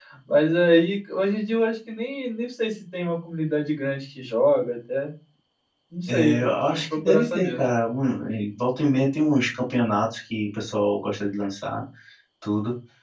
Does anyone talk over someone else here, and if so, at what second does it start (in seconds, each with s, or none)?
6.1 s